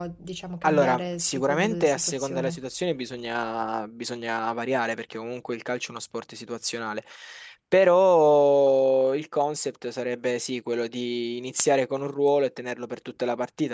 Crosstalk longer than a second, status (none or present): present